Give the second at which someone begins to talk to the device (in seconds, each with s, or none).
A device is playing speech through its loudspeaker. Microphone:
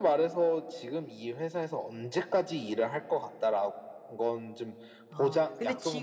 5.1 s